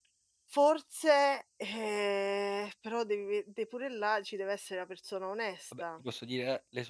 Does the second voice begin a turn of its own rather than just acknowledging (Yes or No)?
Yes